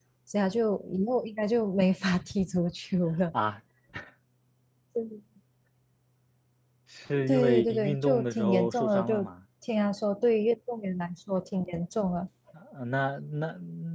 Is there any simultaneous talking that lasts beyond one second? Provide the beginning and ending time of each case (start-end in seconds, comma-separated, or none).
7.3-9.3